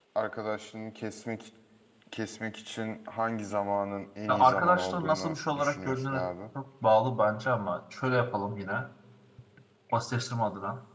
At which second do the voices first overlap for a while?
4 s

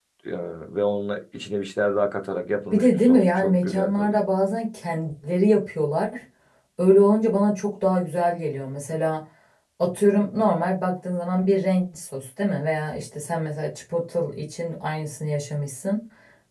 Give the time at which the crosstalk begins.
3 s

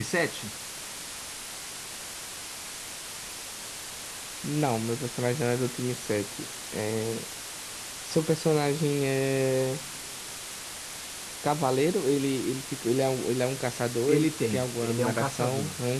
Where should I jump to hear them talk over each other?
14 s

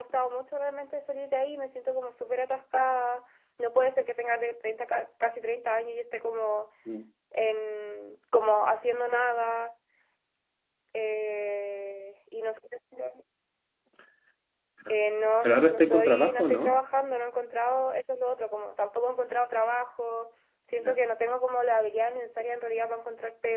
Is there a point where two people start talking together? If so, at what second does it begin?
15 s

